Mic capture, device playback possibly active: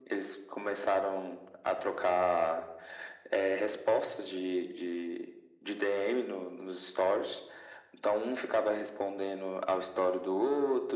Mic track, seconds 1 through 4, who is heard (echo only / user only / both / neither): echo only